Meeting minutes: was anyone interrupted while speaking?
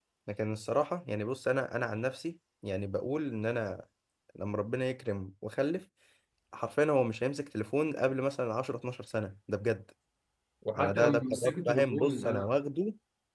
Yes, from 10.8 s

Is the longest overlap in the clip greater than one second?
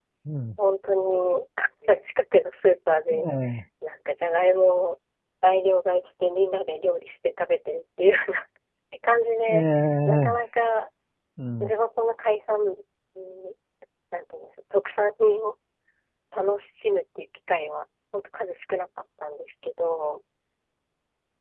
No

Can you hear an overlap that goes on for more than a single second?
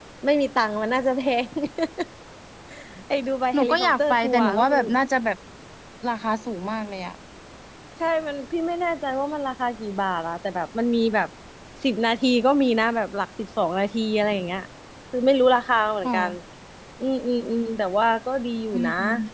Yes, from 3.5 s

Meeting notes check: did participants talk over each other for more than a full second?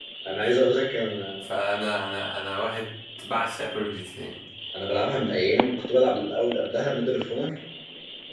No

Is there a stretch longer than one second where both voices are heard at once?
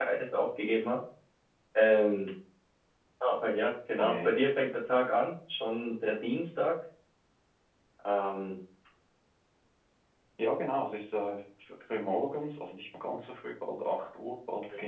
No

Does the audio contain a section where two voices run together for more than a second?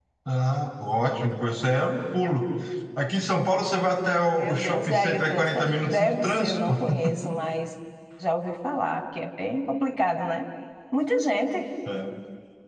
Yes, from 4.4 s

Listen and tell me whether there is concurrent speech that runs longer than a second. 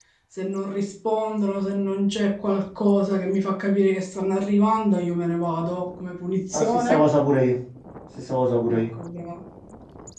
No

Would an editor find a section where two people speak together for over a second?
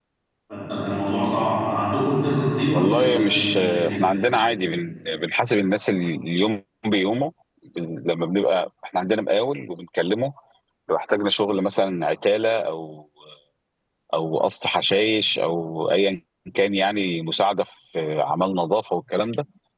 Yes, from 2.7 s

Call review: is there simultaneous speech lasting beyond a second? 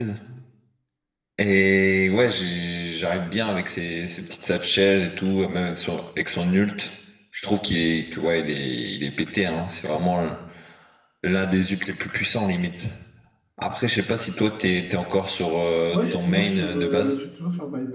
Yes, from 15.9 s

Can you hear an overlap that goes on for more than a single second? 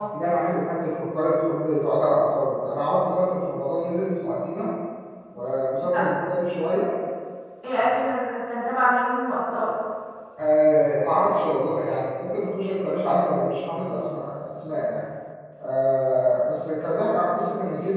No

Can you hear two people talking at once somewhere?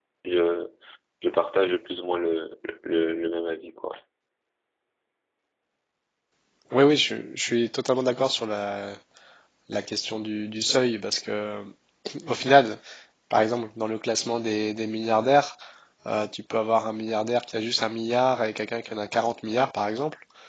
No

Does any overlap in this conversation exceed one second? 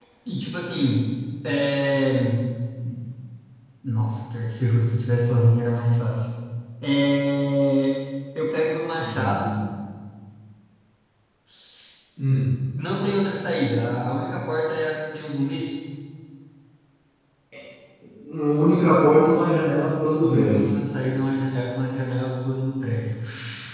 No

